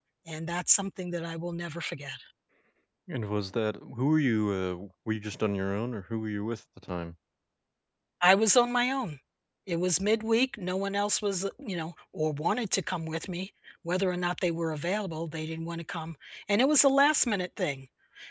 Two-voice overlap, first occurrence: none

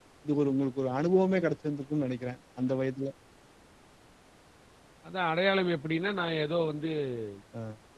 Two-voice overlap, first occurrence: none

